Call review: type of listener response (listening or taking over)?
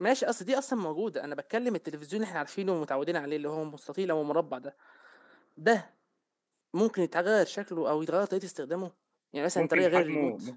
taking over